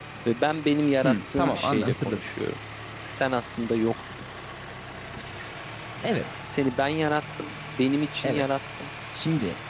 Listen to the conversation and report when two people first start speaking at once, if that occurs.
1.0 s

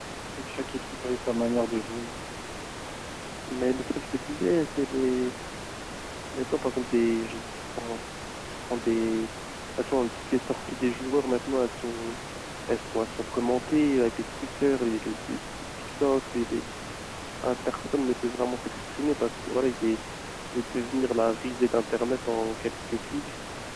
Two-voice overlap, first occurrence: none

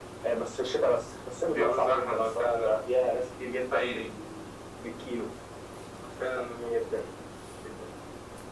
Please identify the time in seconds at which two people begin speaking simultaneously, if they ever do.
1.5 s

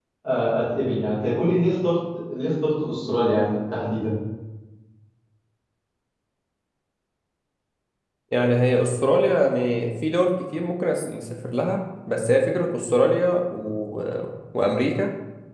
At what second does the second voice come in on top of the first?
none

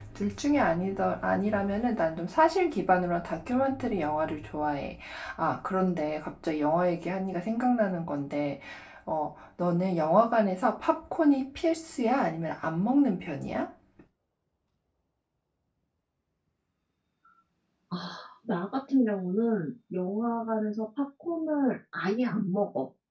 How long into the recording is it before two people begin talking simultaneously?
none

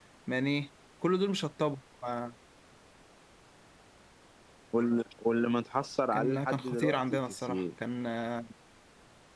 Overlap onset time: 6.1 s

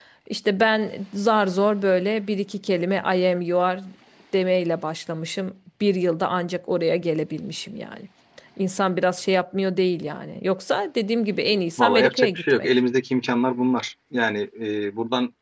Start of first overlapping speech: 11.4 s

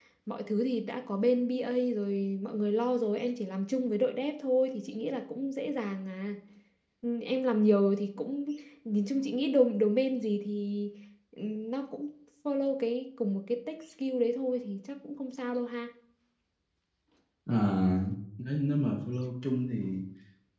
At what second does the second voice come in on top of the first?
none

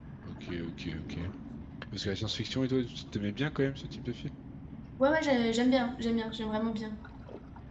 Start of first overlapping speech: none

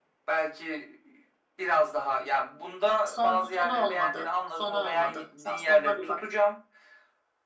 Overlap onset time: 3.0 s

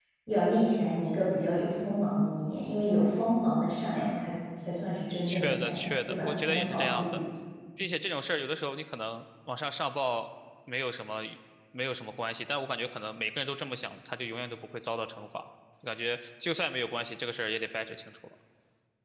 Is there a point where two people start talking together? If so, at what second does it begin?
5.3 s

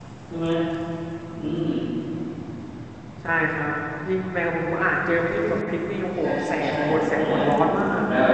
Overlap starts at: 6.2 s

